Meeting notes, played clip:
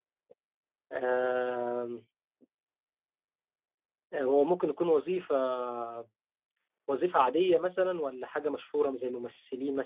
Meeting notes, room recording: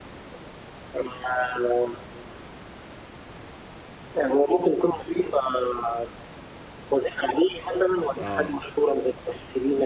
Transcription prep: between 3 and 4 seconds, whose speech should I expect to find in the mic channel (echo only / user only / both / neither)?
neither